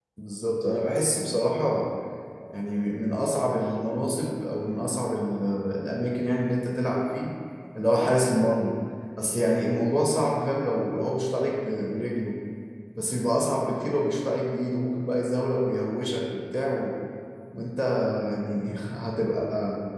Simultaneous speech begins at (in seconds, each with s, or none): none